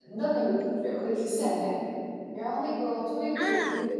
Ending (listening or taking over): listening